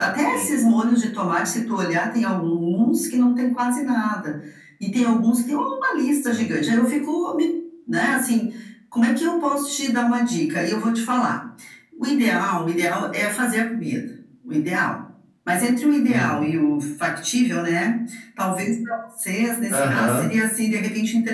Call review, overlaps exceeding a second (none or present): none